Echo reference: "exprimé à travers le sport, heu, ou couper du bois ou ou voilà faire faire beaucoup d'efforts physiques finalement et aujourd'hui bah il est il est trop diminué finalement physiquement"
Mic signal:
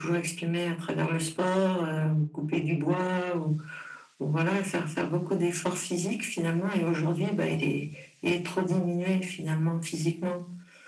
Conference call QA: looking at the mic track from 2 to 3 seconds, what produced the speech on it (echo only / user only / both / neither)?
echo only